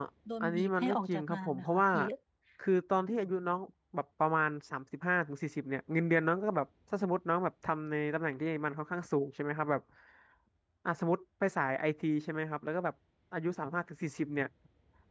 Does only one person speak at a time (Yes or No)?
No